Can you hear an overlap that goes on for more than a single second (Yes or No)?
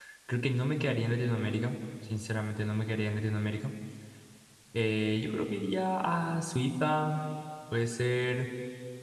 No